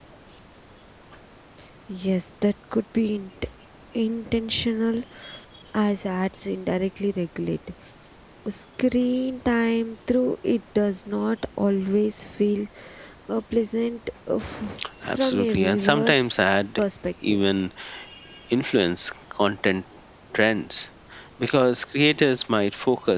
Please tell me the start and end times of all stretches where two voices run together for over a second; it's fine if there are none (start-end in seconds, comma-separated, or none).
15.1-16.3